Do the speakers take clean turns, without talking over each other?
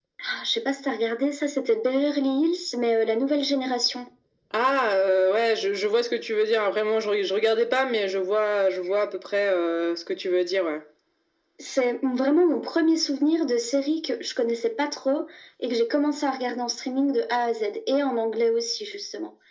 Yes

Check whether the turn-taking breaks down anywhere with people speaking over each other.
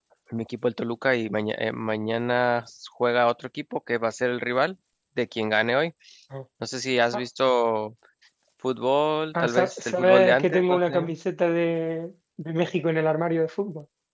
Yes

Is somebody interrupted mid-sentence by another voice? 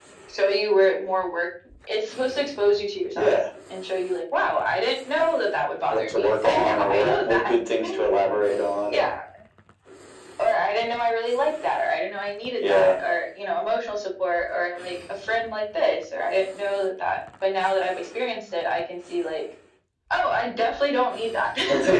Yes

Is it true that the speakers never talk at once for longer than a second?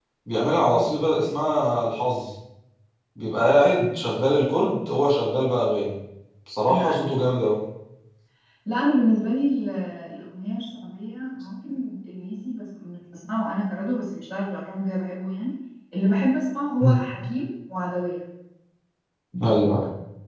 Yes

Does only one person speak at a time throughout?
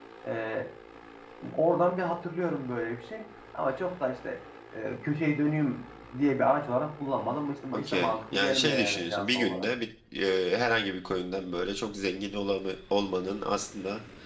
No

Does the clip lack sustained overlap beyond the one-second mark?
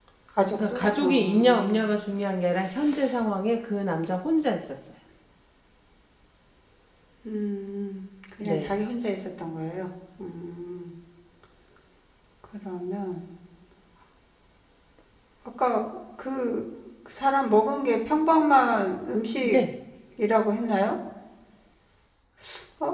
No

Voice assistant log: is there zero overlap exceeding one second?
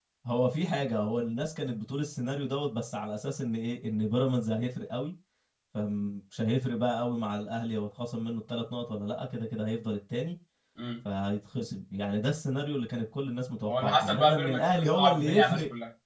No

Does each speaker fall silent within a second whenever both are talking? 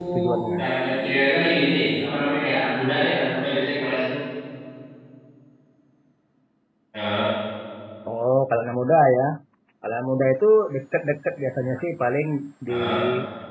Yes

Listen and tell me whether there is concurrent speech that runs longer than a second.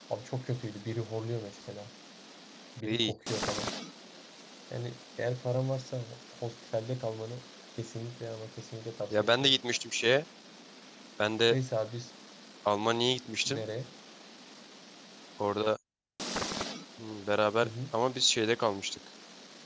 No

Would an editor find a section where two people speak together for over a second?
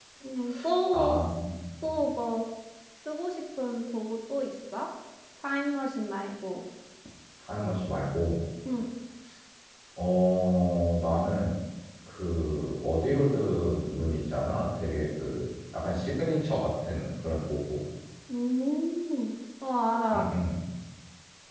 No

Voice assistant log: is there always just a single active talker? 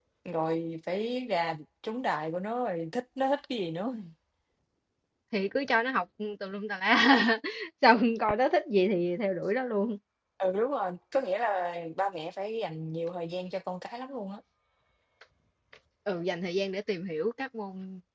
Yes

